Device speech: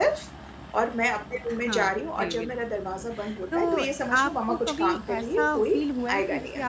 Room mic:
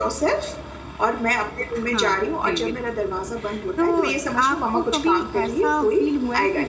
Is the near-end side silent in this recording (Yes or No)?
Yes